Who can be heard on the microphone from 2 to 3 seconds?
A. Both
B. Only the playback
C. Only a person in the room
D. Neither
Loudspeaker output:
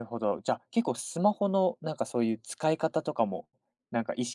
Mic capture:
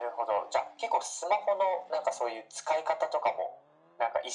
B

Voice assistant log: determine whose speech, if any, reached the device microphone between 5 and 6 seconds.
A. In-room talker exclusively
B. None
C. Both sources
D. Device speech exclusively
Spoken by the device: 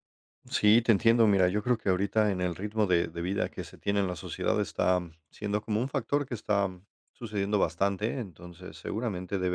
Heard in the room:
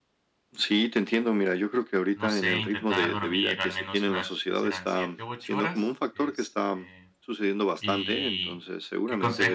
C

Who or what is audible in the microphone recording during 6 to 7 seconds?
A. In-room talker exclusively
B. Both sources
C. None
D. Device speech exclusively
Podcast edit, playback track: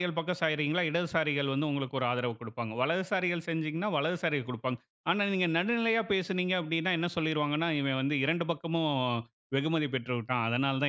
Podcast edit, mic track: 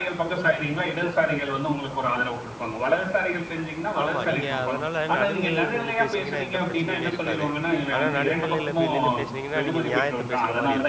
B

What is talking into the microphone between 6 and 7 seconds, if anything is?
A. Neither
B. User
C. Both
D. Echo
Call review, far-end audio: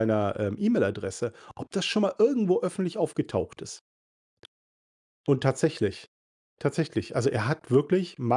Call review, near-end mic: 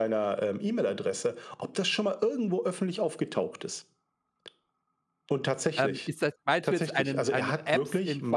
C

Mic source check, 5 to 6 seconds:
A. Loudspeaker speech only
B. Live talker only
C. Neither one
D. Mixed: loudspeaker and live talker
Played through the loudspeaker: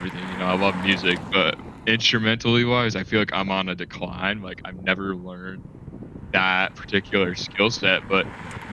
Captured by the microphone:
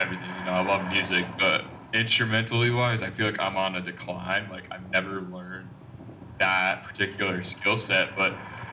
A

